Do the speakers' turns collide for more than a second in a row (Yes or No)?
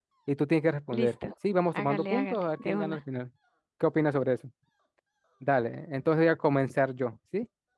Yes